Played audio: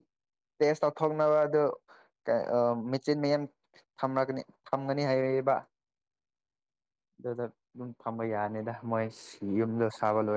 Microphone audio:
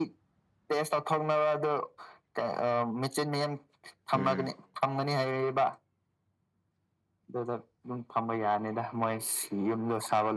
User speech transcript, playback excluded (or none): ꯎꯝ